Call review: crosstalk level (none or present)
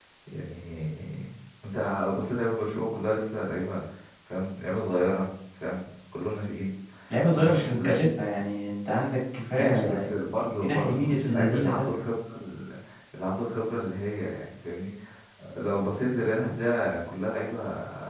present